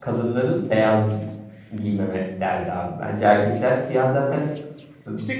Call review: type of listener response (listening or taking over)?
taking over